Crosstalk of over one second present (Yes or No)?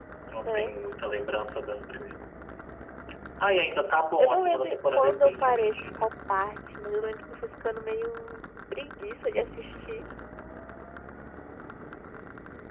Yes